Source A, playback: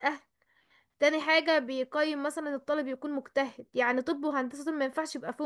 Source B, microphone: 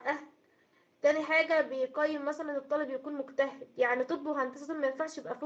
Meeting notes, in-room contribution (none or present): none